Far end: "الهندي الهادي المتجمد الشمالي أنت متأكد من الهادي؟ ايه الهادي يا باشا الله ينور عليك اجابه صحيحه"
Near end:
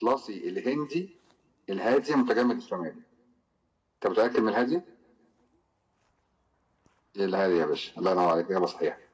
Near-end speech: none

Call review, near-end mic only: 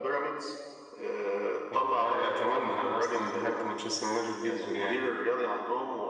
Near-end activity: none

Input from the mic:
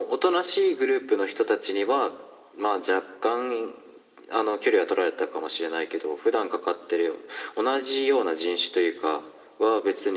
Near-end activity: none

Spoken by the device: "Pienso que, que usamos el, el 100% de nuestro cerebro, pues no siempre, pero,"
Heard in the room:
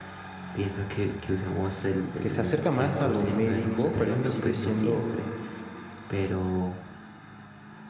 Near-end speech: present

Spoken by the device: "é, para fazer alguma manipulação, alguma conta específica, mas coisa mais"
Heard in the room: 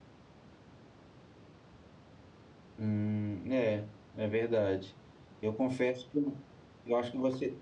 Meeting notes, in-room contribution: present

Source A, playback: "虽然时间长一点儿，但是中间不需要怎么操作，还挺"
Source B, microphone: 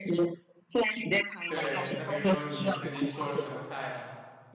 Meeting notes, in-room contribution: present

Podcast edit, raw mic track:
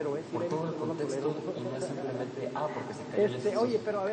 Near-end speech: present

